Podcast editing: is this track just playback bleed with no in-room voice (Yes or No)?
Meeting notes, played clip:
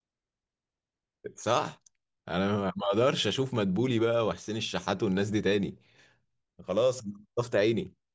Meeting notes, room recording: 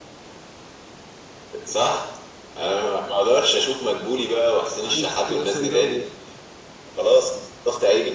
No